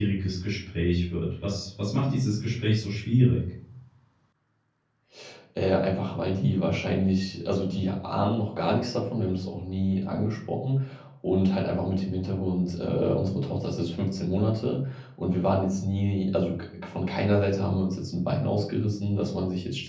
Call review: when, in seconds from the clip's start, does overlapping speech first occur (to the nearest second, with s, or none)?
none